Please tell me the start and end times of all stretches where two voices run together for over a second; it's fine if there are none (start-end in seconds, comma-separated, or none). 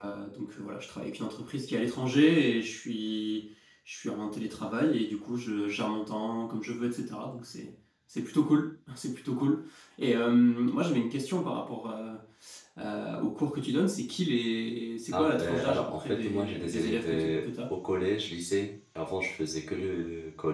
15.1-17.5